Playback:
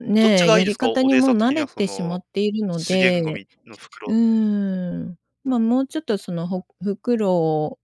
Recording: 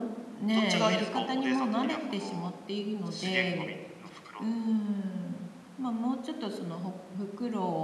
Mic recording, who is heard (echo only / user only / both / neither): echo only